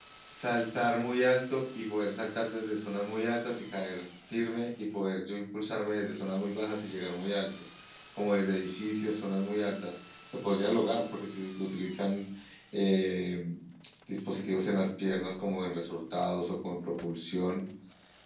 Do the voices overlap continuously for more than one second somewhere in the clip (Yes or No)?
No